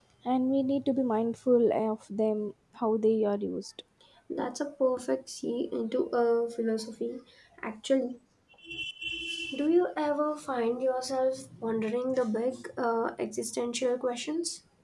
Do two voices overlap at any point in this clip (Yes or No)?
No